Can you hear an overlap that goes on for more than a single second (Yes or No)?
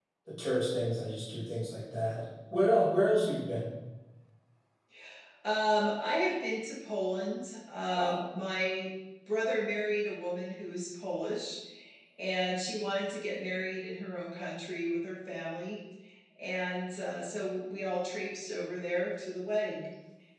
No